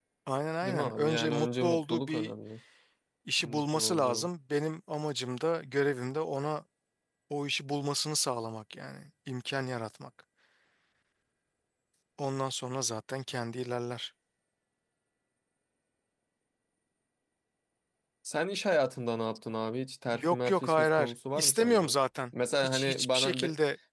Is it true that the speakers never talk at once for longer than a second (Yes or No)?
No